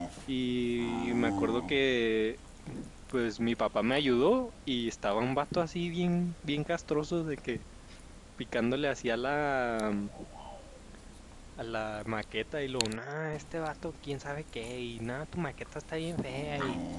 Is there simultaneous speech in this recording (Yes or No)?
No